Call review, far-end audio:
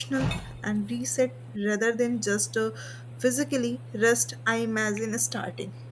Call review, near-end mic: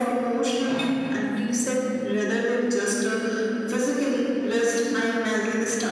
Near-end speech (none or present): none